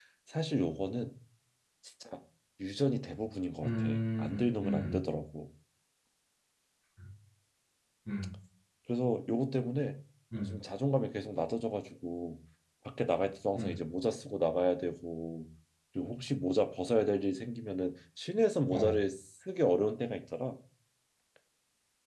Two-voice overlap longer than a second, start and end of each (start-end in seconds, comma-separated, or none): 3.6-5.0